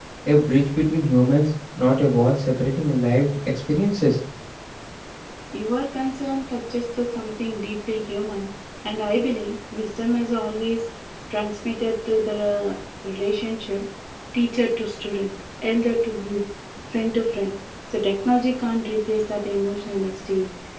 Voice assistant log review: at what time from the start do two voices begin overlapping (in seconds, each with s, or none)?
none